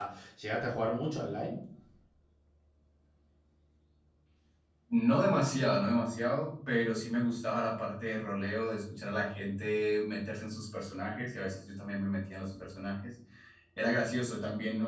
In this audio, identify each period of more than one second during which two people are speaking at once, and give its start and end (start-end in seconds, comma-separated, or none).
none